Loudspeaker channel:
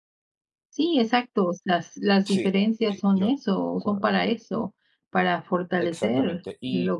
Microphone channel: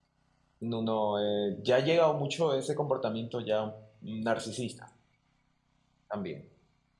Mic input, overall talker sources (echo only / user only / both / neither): user only